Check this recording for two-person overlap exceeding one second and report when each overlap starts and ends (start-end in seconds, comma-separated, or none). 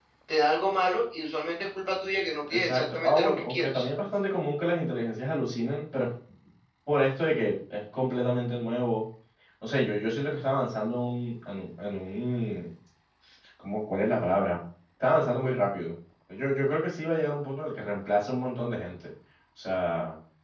2.5-3.9